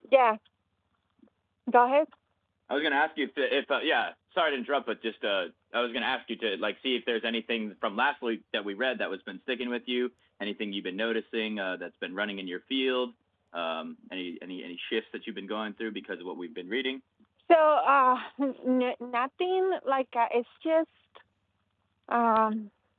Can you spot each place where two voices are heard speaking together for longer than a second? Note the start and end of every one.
none

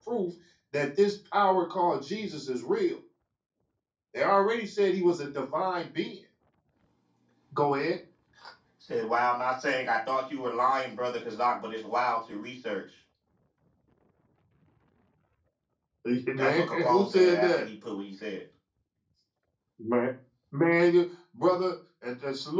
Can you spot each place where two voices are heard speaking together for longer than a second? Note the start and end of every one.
16.4-17.6

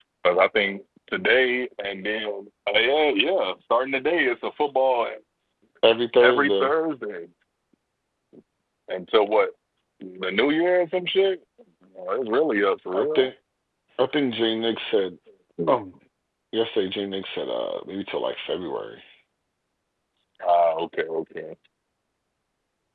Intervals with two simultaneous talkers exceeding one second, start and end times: none

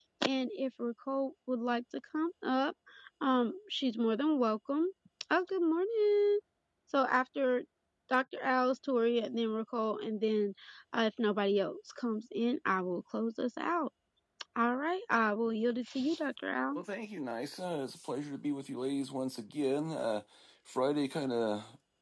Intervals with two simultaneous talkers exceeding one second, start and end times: none

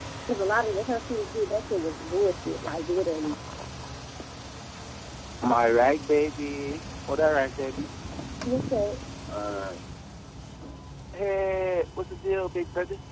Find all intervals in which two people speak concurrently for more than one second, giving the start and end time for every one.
none

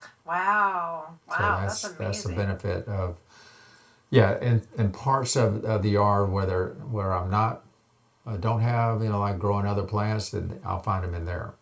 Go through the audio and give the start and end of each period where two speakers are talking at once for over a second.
1.3-2.5

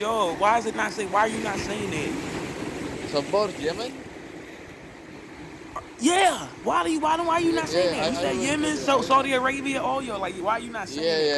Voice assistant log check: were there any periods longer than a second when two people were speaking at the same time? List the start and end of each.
7.4-9.3

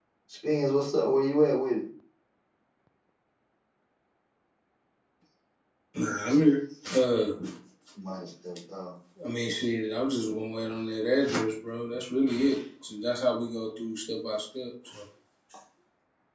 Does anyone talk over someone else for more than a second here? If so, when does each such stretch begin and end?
none

